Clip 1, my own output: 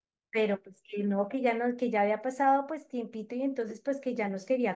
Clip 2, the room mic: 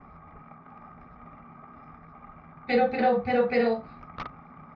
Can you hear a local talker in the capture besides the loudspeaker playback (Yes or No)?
Yes